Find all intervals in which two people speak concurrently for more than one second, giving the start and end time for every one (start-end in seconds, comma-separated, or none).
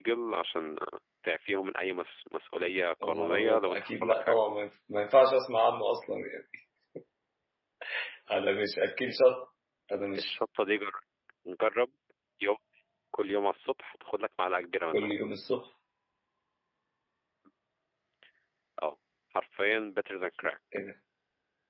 3.0-4.4